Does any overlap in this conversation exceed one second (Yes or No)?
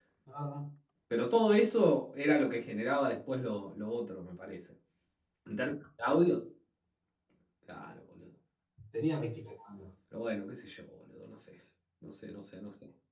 No